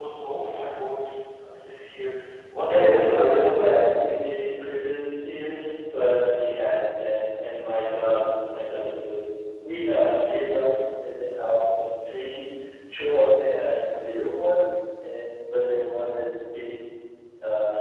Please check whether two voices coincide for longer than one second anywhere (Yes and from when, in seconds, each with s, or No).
Yes, from 2.7 s